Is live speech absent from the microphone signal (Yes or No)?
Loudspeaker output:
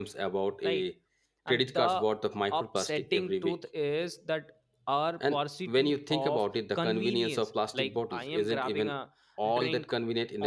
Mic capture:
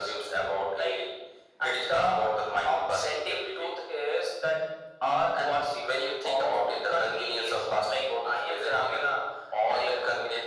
Yes